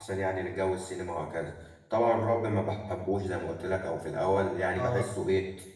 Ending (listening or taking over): listening